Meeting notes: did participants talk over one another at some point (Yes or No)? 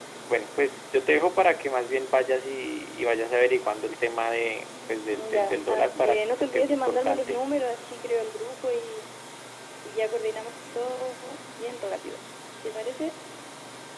Yes